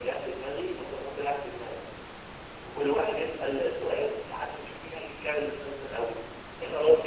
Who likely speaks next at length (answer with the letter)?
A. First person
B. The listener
A